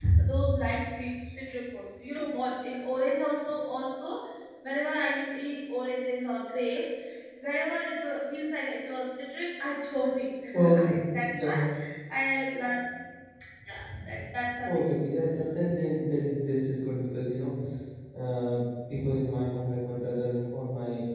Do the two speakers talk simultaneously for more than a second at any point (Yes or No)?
No